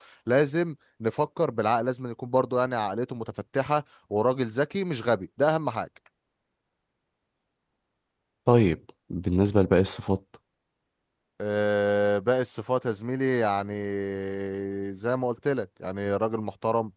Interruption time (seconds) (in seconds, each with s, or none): none